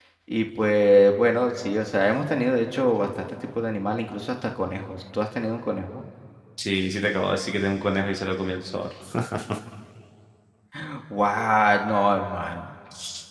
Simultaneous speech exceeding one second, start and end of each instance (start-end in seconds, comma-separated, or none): none